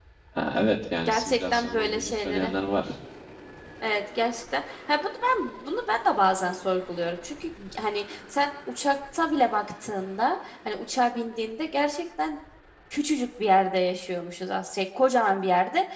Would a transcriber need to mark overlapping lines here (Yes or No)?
Yes